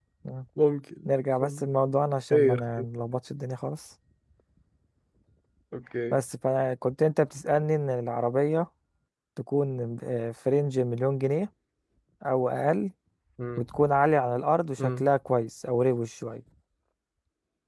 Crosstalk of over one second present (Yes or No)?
No